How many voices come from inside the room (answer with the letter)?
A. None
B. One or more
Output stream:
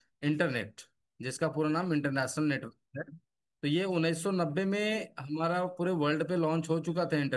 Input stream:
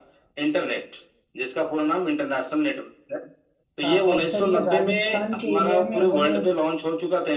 B